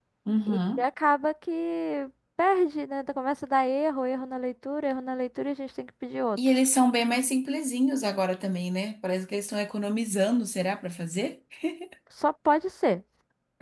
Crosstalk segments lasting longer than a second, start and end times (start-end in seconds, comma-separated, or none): none